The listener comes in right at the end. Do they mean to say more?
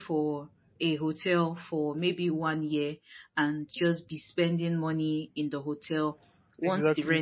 No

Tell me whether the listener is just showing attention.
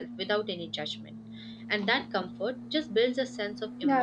No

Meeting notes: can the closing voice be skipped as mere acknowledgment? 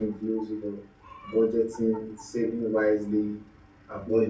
Yes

